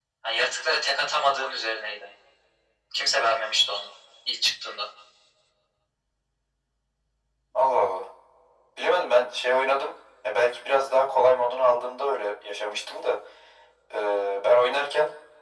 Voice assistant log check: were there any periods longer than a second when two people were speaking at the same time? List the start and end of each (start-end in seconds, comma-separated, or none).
none